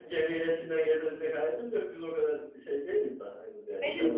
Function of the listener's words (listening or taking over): taking over